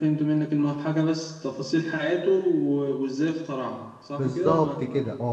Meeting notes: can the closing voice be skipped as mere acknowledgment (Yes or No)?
No